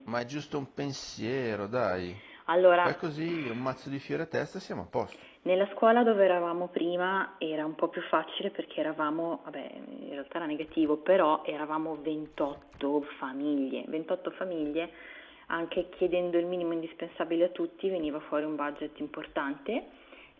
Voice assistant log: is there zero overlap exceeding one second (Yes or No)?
Yes